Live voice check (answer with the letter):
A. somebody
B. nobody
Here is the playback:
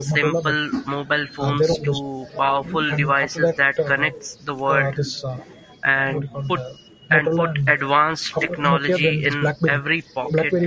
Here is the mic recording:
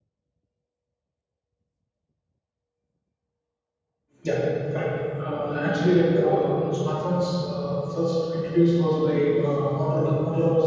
A